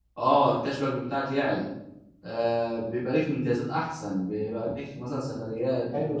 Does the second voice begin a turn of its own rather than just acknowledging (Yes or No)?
Yes